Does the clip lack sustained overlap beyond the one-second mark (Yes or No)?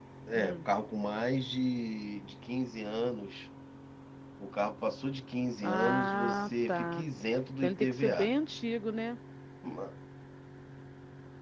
No